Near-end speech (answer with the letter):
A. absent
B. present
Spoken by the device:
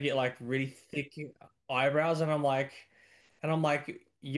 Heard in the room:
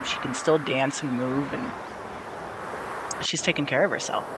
B